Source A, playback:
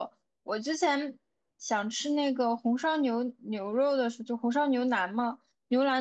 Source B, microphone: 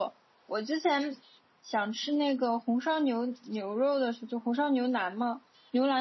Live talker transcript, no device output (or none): none